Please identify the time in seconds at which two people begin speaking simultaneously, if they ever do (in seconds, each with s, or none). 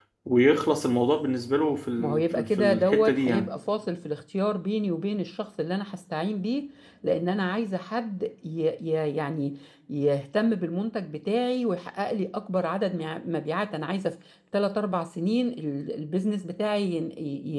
2.0 s